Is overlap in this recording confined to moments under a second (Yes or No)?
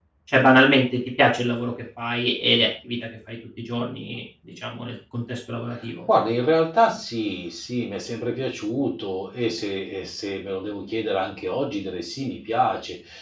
Yes